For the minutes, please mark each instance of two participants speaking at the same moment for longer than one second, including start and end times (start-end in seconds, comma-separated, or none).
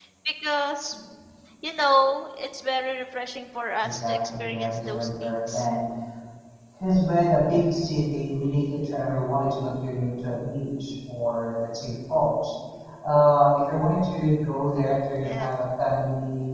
3.8-5.7